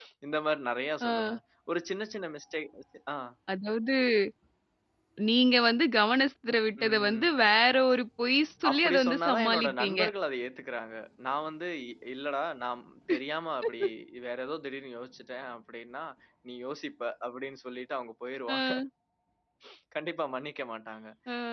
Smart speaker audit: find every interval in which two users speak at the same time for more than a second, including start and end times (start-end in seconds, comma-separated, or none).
8.7-10.0